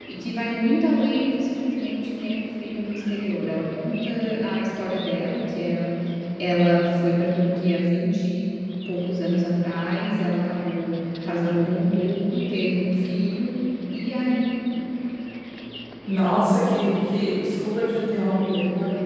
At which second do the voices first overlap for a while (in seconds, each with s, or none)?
none